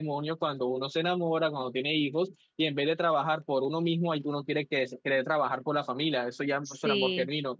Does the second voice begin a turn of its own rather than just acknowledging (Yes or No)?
No